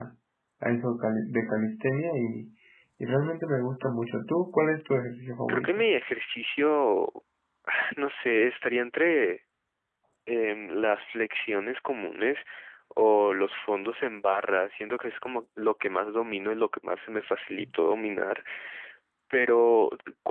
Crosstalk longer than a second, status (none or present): none